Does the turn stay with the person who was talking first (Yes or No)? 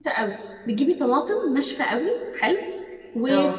Yes